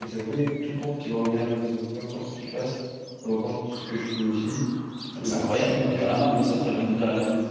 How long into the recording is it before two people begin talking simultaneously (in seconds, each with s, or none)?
5.2 s